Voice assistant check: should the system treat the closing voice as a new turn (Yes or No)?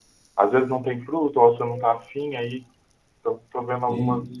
No